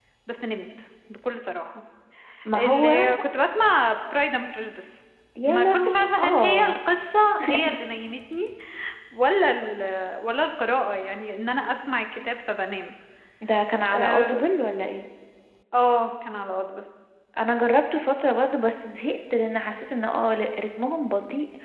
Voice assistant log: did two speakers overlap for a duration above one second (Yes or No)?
Yes